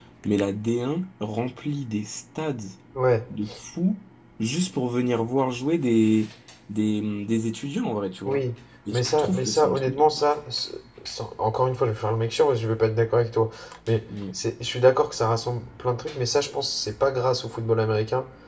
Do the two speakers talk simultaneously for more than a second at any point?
Yes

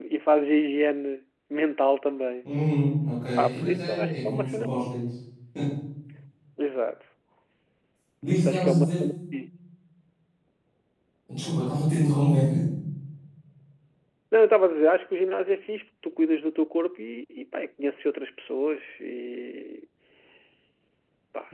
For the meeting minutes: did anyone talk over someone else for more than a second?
Yes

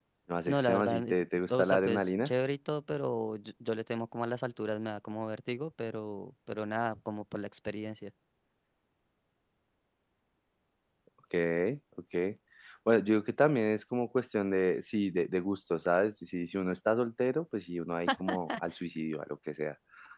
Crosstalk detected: Yes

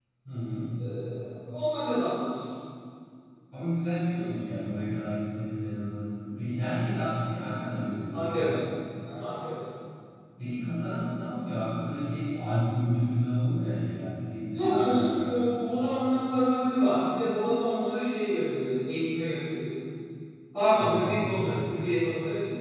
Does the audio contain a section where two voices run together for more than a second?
Yes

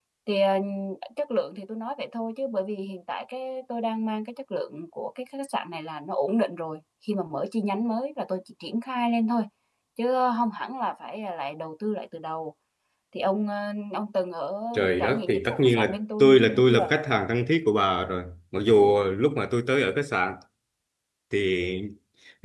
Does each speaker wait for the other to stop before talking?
No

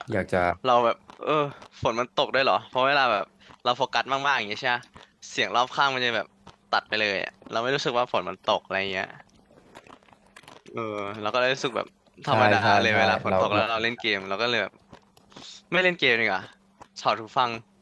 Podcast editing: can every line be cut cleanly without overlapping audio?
No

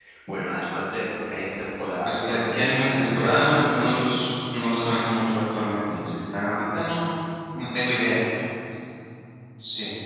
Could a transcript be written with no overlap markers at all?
No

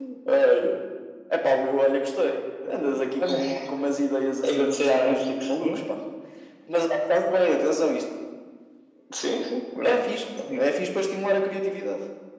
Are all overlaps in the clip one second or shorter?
No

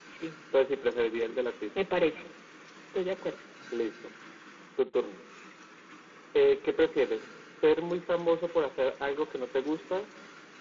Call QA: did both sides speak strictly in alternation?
Yes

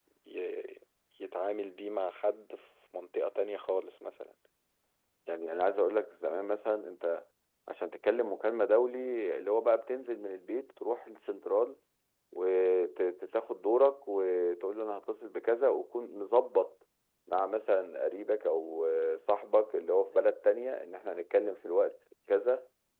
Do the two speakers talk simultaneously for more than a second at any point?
No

